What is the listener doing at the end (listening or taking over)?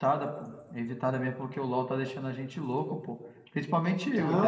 taking over